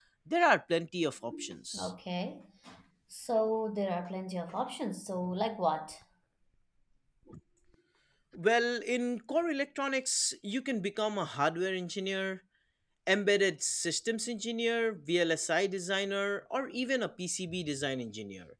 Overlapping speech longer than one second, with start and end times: none

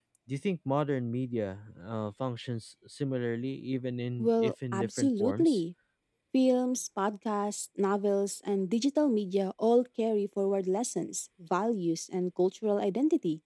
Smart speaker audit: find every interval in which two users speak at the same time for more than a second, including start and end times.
4.2-5.6

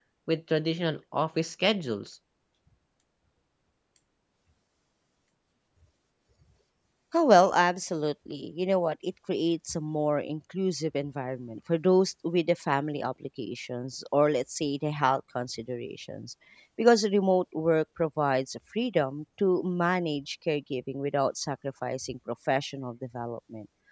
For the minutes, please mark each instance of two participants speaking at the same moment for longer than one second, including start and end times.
none

